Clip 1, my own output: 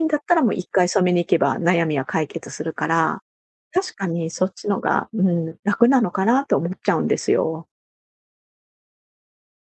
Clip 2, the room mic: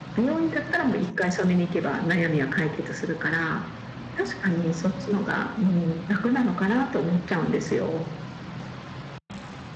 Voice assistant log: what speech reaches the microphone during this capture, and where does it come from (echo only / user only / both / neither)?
echo only